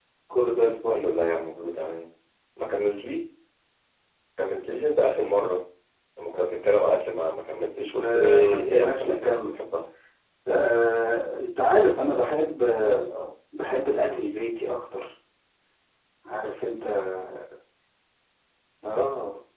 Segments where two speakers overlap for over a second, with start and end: 8.0-9.5

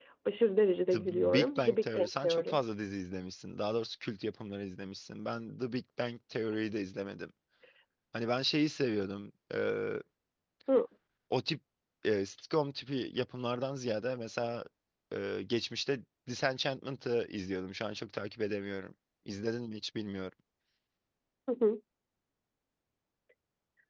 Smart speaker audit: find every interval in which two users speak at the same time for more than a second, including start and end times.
0.9-2.6

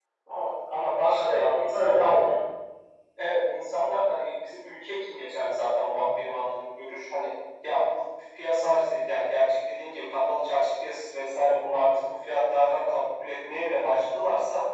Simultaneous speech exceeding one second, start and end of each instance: 1.0-2.3

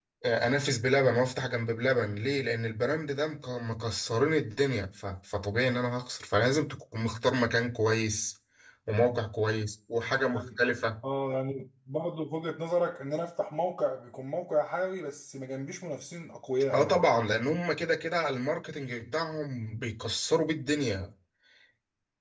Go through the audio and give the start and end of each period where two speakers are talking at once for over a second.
none

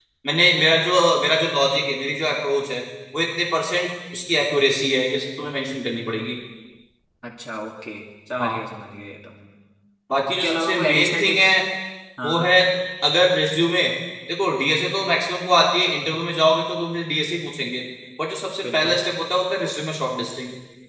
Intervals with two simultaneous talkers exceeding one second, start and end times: 10.3-11.5

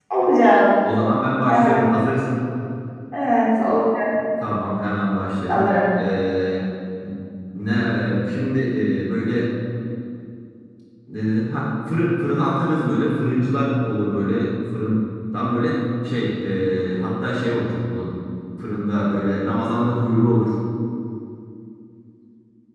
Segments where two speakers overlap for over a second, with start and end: none

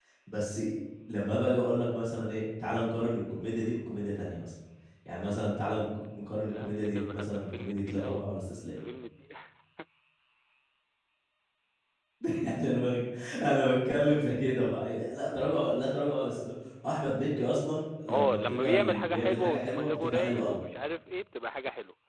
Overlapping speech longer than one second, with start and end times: 6.5-8.3, 18.1-20.6

